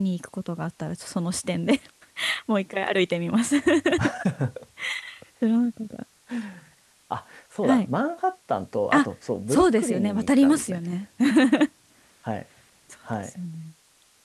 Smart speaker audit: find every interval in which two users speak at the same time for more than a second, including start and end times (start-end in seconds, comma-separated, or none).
9.5-10.8